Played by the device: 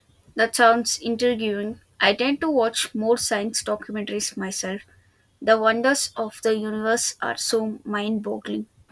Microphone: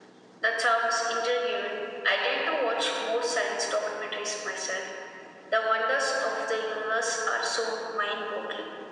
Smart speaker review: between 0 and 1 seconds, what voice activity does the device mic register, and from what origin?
echo only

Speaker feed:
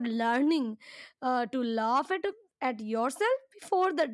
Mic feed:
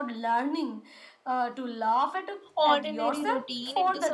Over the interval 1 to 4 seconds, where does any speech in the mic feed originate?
both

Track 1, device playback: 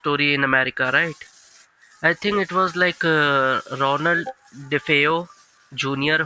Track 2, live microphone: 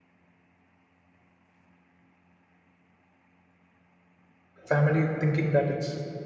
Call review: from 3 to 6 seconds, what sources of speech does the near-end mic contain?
user only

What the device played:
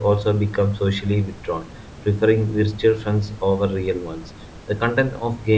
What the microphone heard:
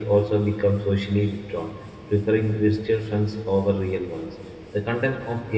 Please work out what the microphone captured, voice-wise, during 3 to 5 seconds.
echo only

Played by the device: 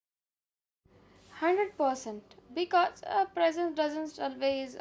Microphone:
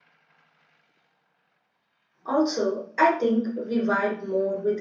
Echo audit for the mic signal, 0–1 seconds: neither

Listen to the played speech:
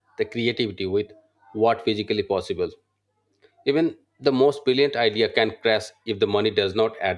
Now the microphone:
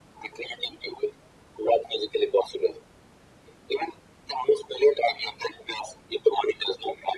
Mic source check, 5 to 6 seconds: echo only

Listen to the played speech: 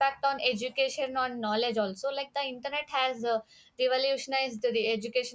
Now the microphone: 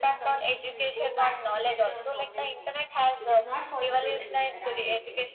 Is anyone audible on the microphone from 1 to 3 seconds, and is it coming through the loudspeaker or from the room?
both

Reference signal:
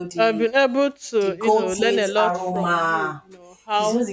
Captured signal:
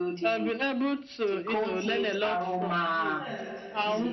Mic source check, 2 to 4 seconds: both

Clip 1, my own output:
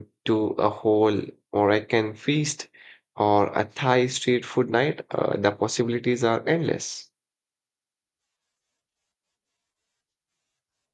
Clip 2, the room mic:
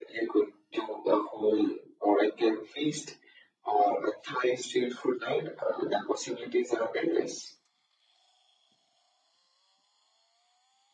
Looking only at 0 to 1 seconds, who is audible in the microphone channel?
echo only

